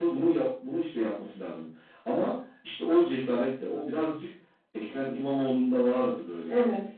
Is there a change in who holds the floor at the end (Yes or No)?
No